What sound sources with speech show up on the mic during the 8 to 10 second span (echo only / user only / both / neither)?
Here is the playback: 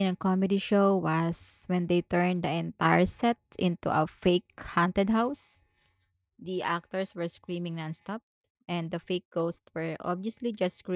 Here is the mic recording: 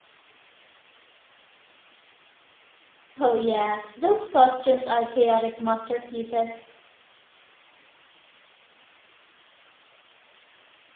neither